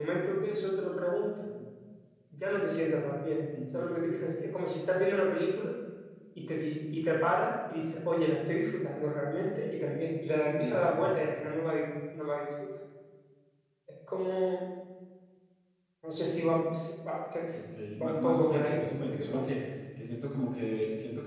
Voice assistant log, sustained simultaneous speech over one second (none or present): present